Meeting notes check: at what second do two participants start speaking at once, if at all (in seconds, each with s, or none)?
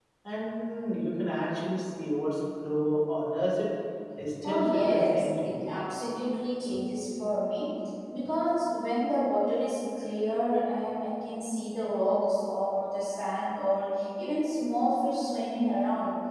4.4 s